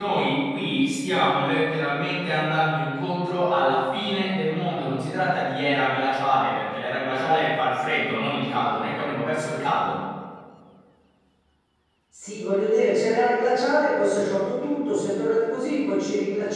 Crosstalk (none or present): none